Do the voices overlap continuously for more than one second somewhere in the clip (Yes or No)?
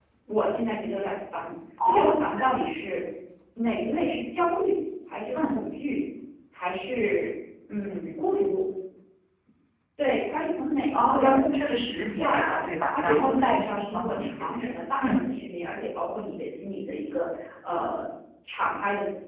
Yes